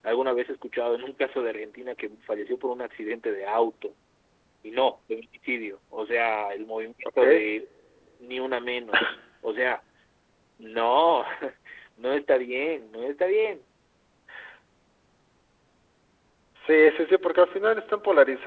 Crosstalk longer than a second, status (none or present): none